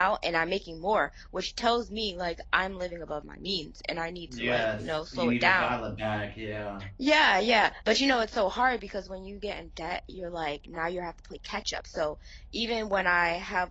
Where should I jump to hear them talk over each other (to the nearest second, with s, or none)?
4 s